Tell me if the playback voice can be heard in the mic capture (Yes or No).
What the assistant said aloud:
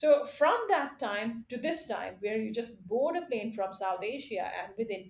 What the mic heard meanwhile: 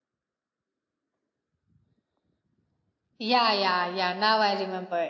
No